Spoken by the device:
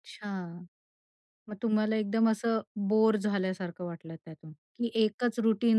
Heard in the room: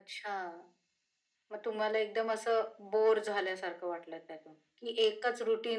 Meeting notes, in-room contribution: none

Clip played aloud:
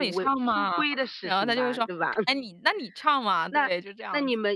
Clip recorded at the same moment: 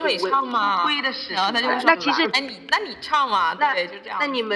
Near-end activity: present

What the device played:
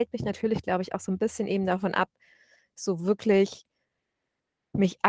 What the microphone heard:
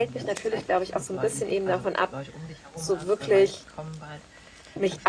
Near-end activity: present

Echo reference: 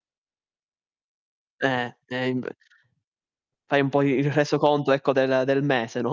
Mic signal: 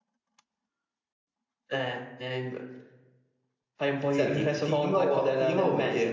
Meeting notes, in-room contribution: present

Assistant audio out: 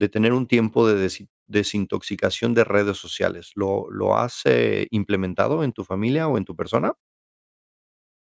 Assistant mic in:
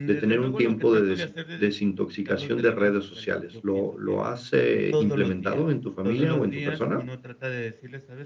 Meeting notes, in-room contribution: present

